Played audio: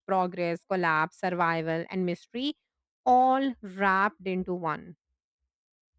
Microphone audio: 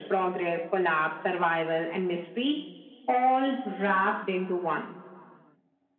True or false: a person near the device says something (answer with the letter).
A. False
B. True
A